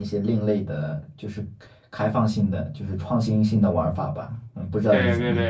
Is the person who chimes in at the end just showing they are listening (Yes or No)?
No